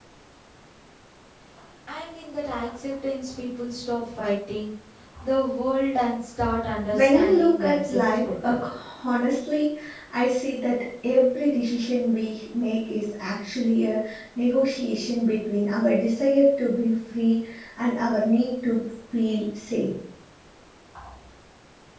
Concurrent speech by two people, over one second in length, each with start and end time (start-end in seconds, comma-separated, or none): 6.9-8.6